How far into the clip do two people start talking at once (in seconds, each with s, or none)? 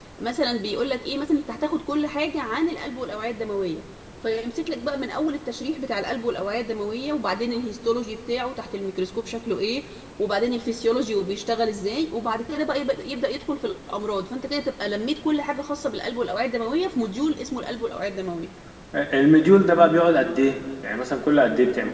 none